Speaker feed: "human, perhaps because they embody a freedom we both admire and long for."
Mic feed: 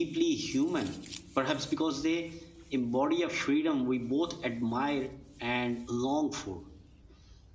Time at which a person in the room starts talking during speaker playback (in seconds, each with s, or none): none